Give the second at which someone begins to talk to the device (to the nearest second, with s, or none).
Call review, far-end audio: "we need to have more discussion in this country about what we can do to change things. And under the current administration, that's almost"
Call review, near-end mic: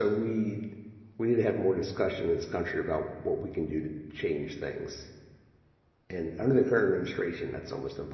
none